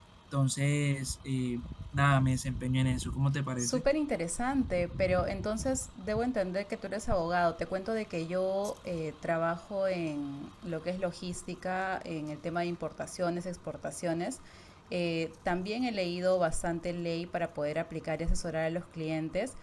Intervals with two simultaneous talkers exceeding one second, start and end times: none

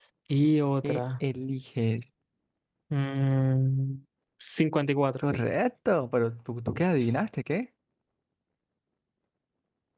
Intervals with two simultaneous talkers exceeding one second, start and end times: none

